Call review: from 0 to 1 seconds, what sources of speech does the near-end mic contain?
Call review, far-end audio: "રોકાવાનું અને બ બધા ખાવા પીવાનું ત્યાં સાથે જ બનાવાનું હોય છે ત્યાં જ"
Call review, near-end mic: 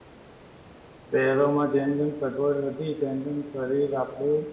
neither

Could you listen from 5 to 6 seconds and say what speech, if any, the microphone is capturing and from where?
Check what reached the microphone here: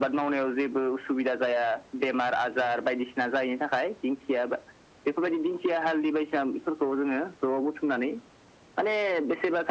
echo only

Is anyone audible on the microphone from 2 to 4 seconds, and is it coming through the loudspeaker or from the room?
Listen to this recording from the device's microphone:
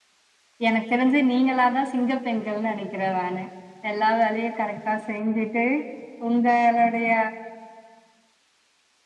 user only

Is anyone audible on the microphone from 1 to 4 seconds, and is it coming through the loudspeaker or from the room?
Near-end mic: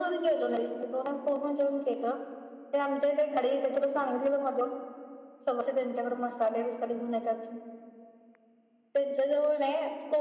echo only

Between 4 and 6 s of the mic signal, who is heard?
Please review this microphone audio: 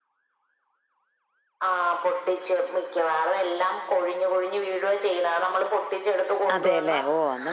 echo only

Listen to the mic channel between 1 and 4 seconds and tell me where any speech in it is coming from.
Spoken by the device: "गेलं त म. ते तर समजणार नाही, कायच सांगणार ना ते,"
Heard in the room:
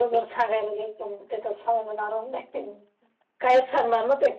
echo only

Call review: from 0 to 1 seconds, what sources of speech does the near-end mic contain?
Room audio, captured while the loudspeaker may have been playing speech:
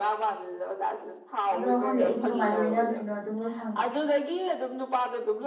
echo only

